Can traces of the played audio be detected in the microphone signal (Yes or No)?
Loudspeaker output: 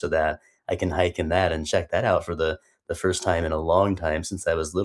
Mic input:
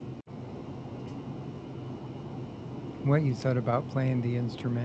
No